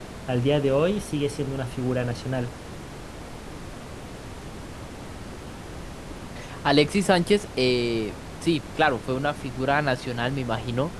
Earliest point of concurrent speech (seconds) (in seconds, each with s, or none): none